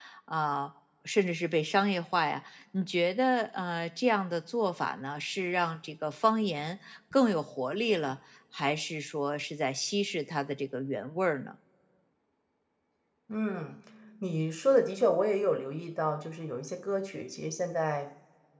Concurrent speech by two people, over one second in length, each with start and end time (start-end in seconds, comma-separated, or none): none